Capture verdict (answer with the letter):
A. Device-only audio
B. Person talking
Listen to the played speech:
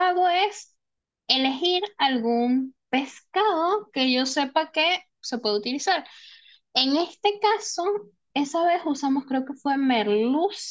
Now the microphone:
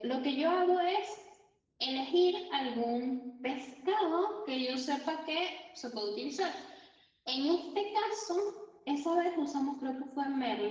A